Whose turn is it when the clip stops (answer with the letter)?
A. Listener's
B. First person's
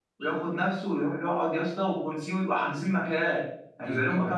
B